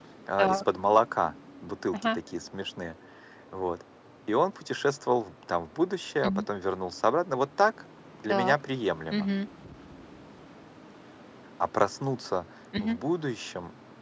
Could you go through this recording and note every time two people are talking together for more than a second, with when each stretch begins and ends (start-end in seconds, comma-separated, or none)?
none